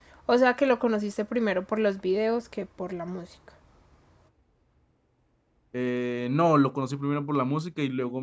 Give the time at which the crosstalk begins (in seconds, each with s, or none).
none